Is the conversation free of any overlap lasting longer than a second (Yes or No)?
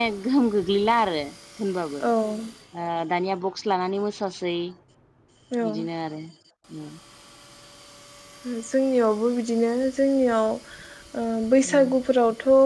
Yes